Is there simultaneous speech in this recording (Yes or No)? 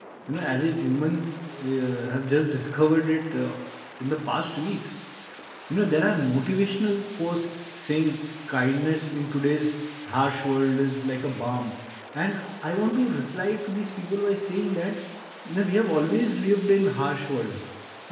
No